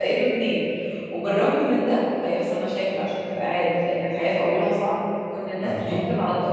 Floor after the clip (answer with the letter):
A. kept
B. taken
A